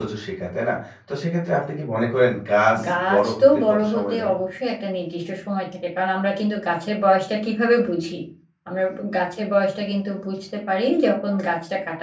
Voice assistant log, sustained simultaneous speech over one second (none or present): present